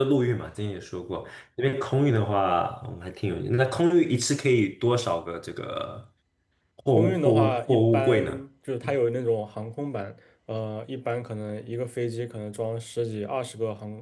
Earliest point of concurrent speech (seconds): 7.0 s

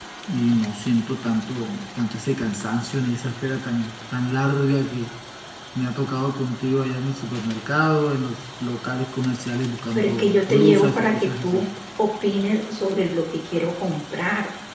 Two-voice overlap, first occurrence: 10.0 s

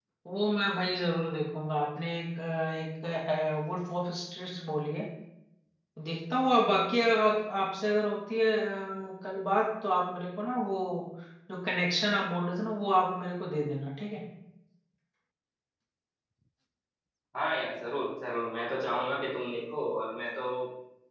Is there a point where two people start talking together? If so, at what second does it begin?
none

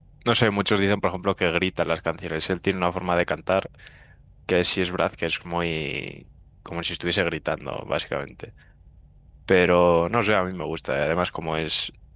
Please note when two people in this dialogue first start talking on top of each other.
none

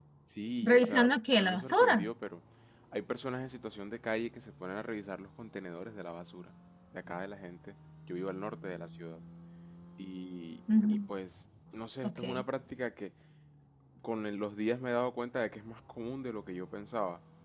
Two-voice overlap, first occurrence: 0.6 s

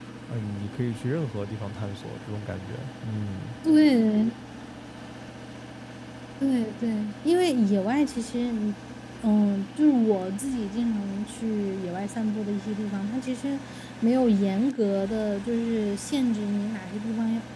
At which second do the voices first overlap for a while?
none

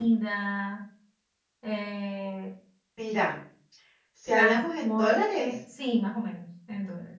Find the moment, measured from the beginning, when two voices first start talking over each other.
4.3 s

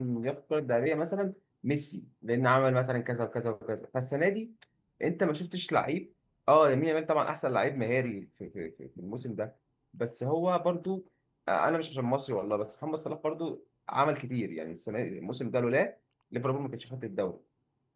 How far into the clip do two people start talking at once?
none

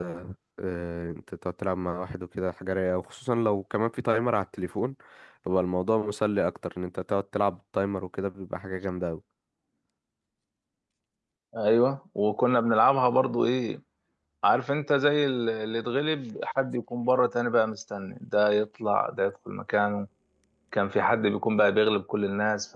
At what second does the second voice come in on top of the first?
none

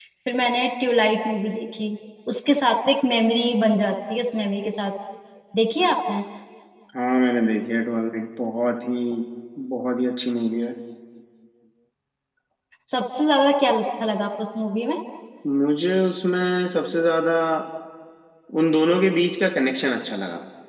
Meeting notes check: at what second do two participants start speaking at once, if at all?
none

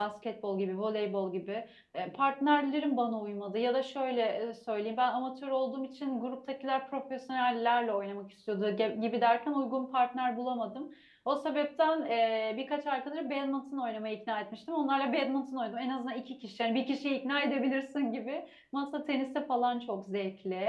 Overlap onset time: none

